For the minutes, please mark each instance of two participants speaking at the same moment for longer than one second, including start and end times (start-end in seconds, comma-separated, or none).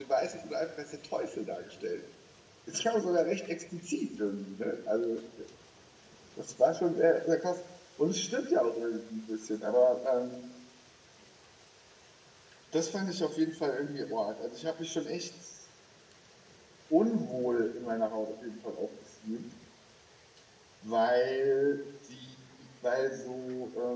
none